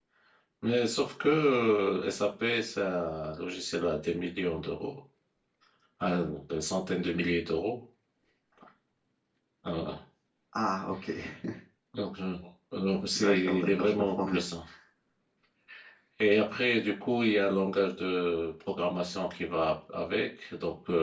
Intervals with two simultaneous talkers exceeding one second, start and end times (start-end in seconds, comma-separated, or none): 13.2-14.4